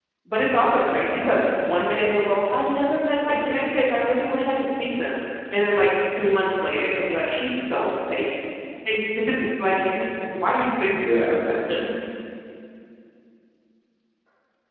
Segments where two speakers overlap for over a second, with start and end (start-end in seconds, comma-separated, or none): 1.0-2.2